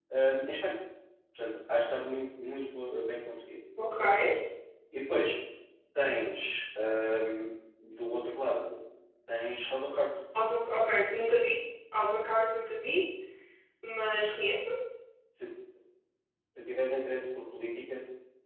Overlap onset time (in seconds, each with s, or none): none